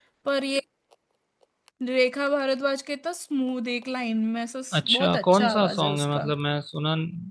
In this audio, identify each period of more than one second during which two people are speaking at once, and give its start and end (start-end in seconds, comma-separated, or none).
4.8-6.2